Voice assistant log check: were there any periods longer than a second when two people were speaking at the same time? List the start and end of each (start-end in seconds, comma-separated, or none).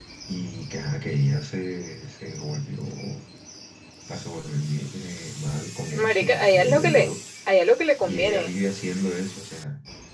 5.8-7.1